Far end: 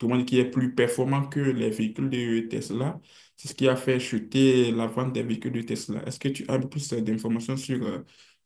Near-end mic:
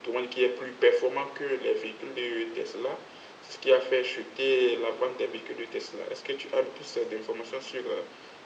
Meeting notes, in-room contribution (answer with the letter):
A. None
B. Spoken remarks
A